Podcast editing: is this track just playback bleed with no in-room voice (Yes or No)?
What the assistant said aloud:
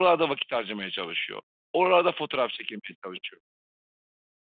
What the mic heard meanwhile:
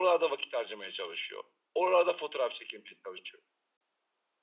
Yes